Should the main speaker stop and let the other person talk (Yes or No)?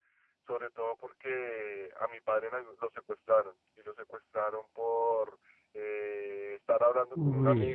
No